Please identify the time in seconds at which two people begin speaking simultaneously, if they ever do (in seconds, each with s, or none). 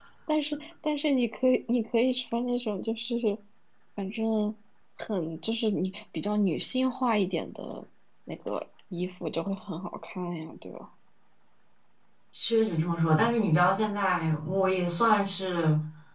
none